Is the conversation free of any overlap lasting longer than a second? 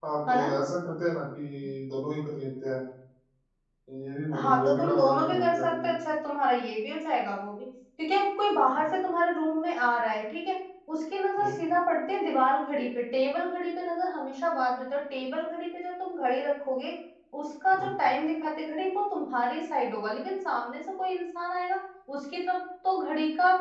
No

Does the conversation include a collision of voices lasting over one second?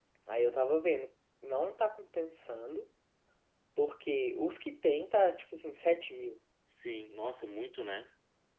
No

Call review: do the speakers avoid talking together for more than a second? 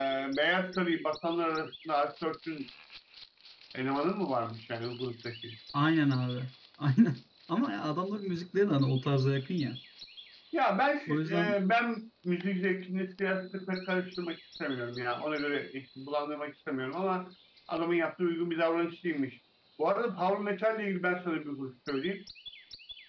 Yes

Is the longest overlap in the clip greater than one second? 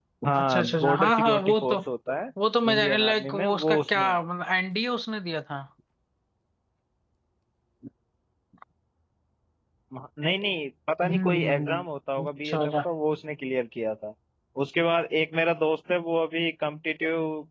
Yes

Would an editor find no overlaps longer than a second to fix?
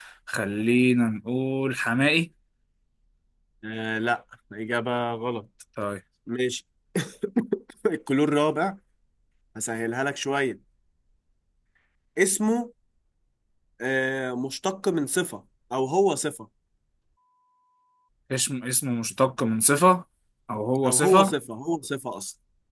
Yes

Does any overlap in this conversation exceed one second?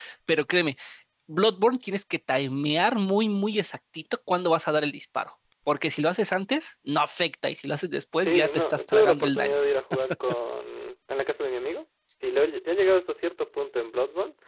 Yes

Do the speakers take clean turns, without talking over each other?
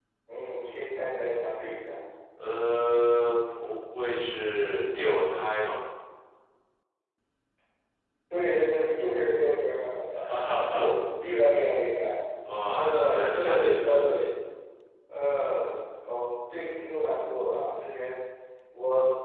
No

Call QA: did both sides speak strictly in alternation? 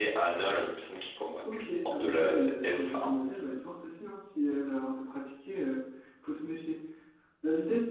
No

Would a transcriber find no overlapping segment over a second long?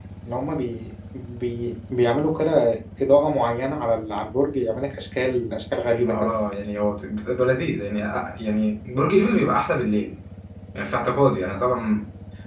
Yes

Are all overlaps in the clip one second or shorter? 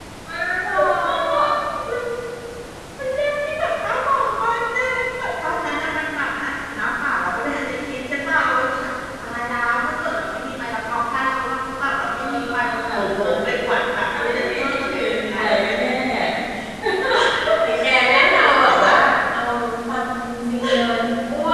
No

